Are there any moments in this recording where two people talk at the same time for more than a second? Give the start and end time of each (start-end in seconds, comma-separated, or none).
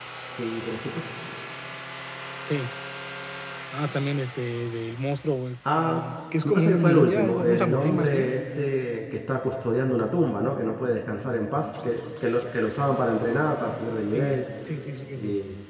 6.5-8.3